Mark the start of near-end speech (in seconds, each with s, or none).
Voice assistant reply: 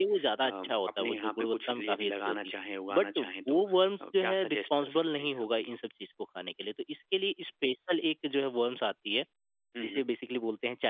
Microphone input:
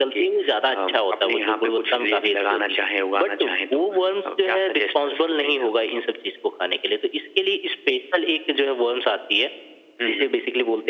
none